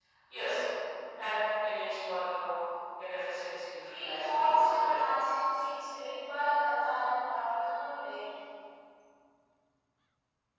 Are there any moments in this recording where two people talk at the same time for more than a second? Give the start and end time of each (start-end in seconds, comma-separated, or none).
3.9-5.2